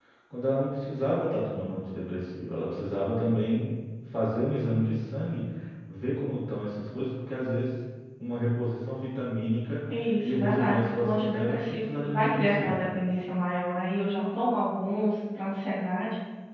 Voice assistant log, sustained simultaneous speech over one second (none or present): present